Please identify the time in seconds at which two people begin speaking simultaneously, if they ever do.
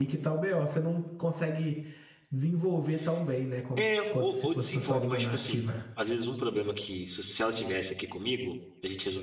4 s

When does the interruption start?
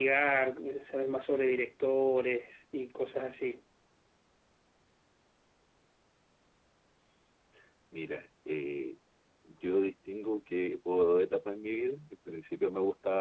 none

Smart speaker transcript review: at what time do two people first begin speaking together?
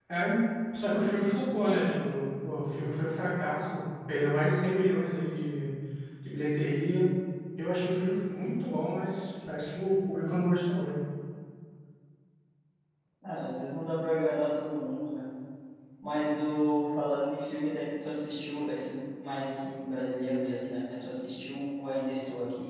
none

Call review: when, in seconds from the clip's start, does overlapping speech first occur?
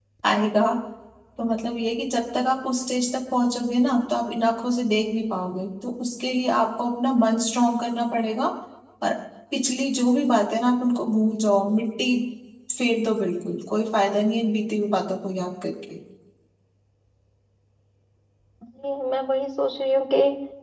none

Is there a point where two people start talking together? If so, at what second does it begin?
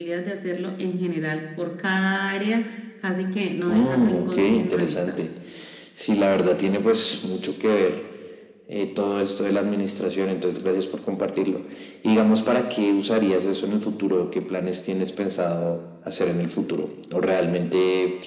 4 s

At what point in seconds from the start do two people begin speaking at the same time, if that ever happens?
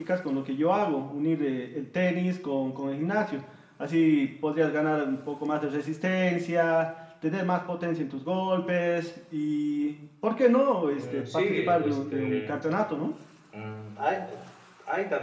11 s

